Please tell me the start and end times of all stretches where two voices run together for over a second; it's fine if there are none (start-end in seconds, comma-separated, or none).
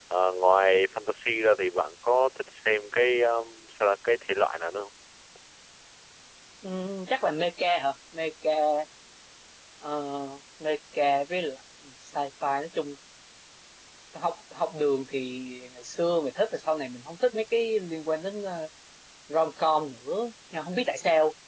none